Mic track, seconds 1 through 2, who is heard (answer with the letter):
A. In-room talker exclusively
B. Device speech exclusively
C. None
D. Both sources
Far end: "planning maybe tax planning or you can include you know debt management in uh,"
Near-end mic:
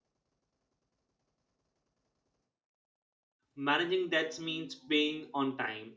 C